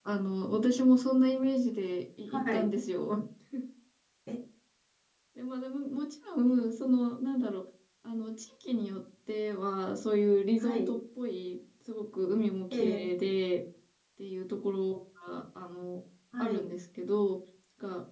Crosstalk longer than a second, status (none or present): none